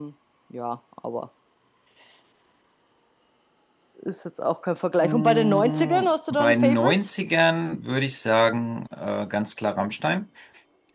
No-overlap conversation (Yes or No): No